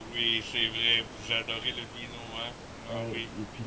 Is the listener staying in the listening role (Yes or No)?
No